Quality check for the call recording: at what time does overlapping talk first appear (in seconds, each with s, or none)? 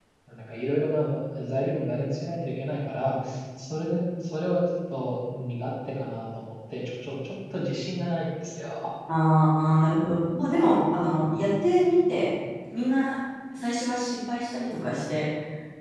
none